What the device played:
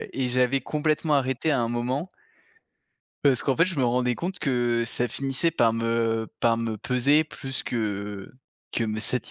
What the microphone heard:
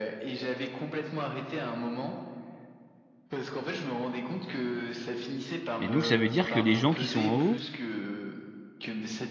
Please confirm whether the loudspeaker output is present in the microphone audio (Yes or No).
Yes